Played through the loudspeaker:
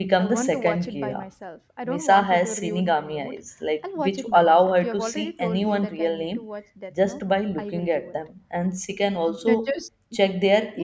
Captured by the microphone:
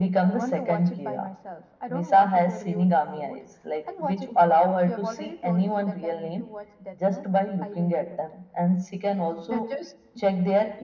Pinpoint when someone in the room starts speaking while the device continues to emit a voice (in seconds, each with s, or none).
none